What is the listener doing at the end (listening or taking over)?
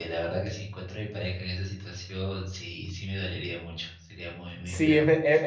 taking over